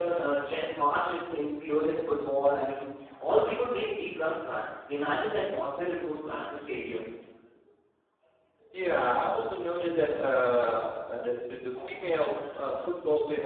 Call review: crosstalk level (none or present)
none